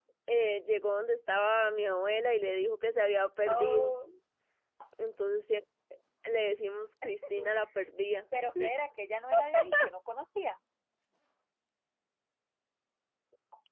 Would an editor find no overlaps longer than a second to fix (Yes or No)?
Yes